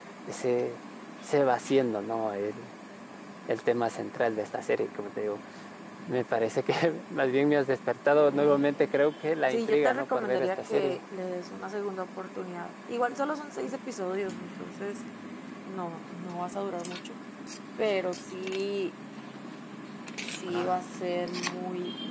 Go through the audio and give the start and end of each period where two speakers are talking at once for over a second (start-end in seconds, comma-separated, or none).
9.5-11.0